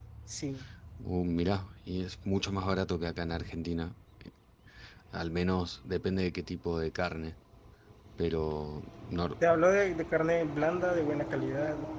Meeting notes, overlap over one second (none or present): none